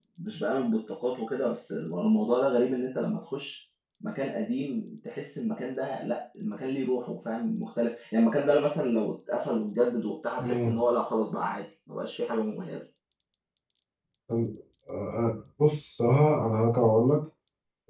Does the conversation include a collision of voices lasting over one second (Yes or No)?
No